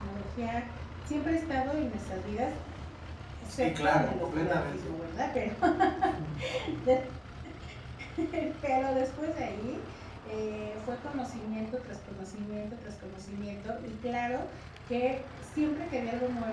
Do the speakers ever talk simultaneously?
Yes, from 3.5 s

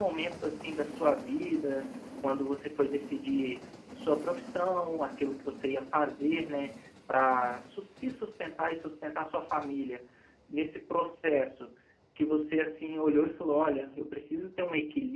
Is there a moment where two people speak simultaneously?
No

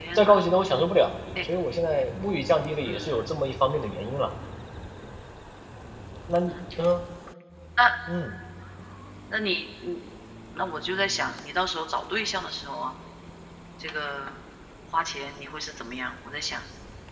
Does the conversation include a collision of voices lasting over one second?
No

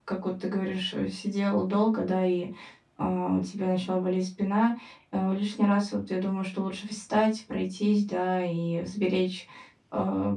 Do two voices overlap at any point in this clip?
No

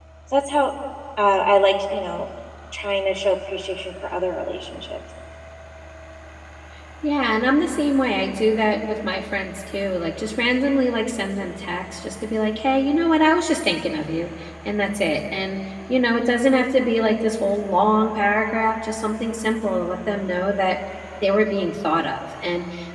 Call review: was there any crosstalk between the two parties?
No

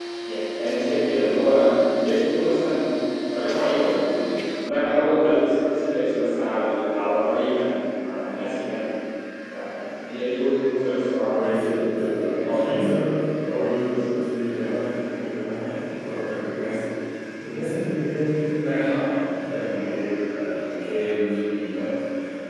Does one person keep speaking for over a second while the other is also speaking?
Yes, from 11.3 s

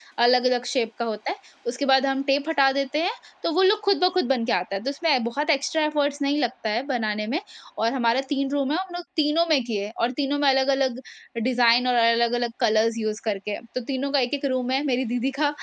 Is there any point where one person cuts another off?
No

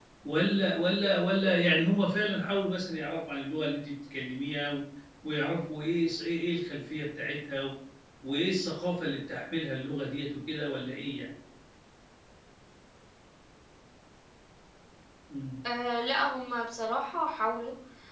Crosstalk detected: No

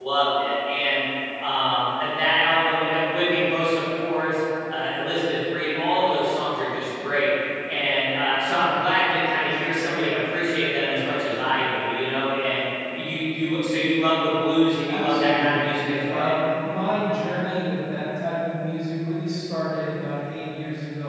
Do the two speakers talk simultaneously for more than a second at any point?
Yes, from 14.8 s

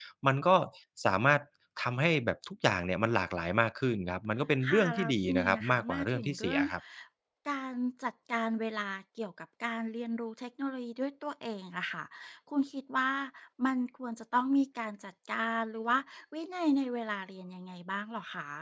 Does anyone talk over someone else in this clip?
Yes, from 4.6 s

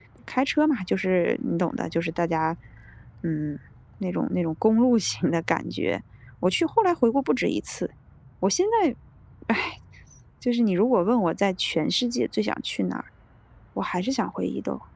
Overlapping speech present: No

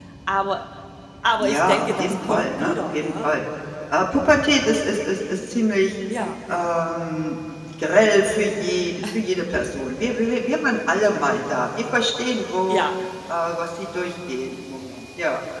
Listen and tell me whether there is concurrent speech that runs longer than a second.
Yes, from 1.4 s

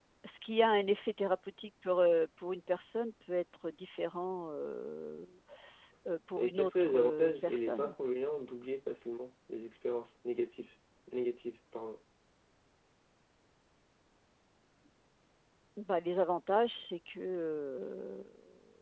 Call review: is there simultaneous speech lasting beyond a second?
Yes, from 6.4 s

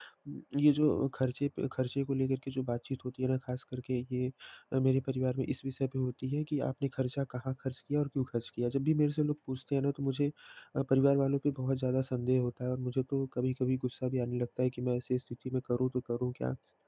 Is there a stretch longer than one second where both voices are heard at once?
No

